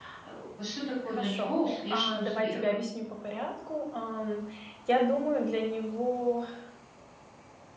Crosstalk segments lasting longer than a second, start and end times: 1.1-2.7

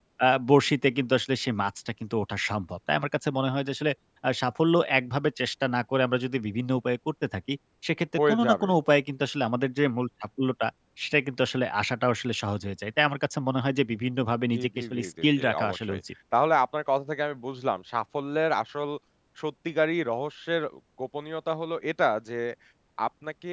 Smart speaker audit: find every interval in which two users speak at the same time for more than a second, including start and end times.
14.5-16.0

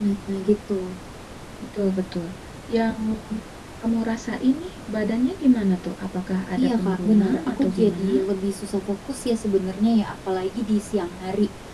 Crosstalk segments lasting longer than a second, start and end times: 6.6-8.2

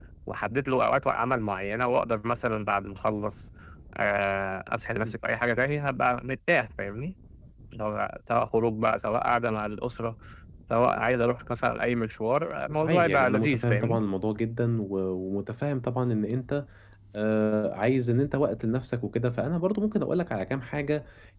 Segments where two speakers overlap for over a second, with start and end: 12.7-14.0

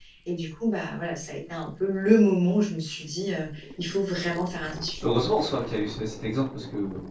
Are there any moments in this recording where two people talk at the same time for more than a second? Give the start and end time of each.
none

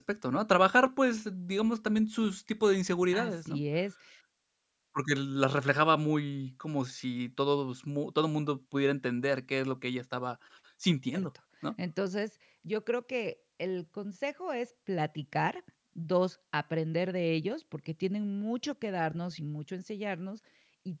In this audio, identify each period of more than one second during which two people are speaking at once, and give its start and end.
none

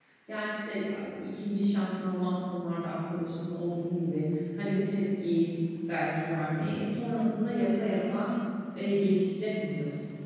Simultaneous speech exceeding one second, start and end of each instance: none

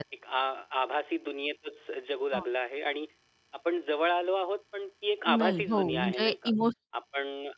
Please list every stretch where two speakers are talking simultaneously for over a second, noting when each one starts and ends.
5.3-6.5

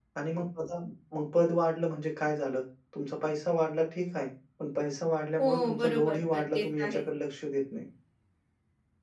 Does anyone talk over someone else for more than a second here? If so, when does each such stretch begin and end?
5.4-7.0

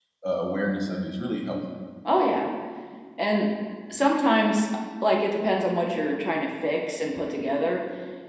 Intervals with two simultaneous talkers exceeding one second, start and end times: none

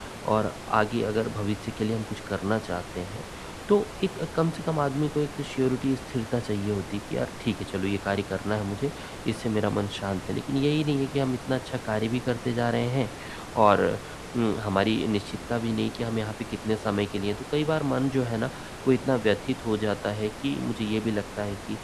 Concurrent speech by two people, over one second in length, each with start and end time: none

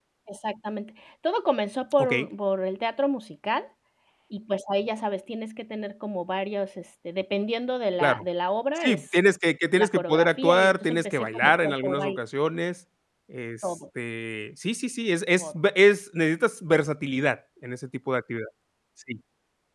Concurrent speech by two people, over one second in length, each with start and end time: 9.7-12.2

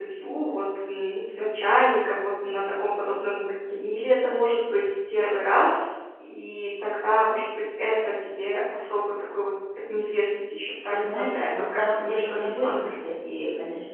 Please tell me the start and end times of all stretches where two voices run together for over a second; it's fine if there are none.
10.9-12.9

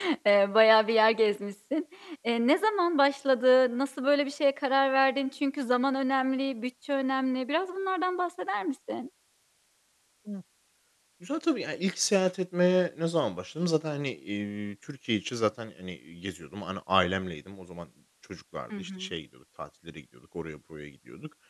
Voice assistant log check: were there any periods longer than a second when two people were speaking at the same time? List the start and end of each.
none

